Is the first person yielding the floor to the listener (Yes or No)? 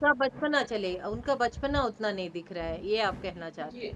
Yes